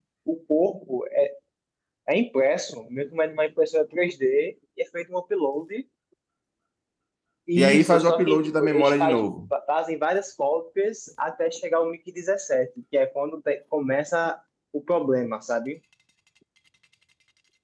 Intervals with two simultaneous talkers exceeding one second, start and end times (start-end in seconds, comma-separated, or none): 7.6-9.2